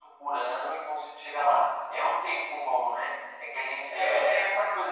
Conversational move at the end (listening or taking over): listening